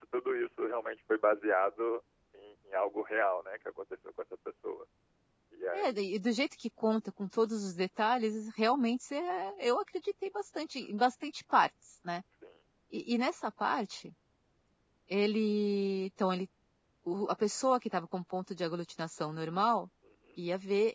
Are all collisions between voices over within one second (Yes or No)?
Yes